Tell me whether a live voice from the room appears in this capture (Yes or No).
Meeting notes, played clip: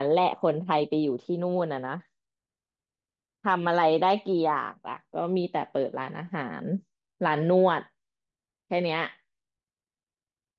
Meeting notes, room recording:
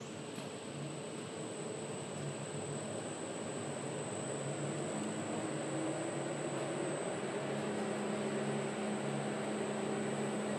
No